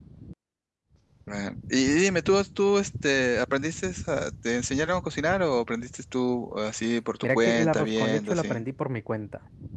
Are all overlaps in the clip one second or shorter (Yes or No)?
No